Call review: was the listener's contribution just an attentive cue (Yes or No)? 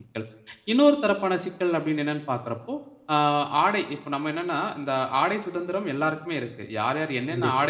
Yes